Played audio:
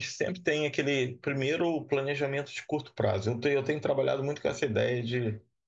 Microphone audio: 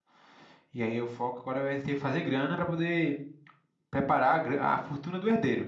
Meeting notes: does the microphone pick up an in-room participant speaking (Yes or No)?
Yes